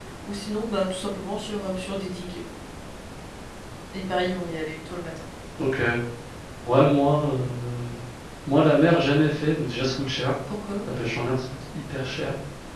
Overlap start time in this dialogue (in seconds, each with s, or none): none